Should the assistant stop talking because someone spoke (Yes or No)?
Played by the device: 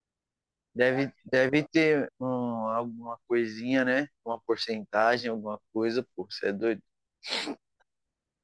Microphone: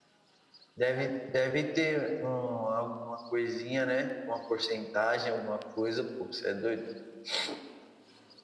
No